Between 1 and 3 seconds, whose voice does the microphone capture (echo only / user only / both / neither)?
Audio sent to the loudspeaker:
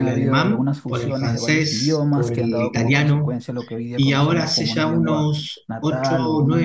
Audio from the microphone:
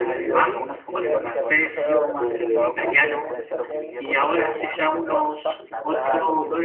both